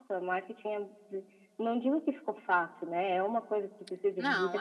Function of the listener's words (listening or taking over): listening